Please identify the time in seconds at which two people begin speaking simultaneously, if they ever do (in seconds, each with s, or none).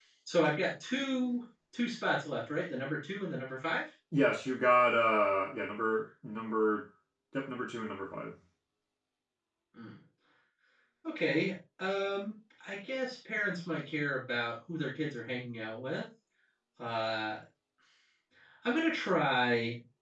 none